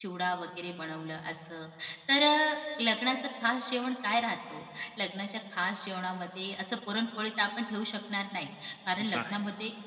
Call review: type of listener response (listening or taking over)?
listening